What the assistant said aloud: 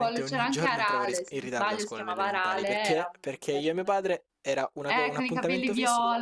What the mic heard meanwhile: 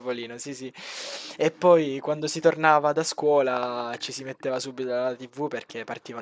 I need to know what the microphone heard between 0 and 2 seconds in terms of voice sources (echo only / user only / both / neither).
user only